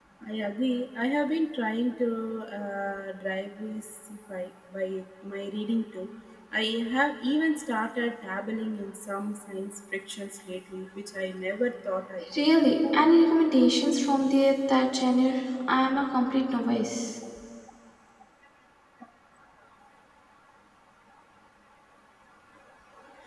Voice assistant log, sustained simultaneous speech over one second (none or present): none